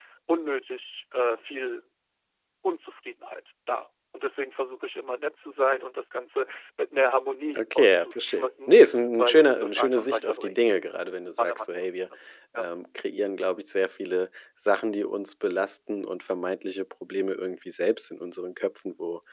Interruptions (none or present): present